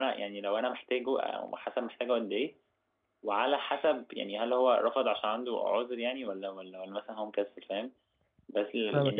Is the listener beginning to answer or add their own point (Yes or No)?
No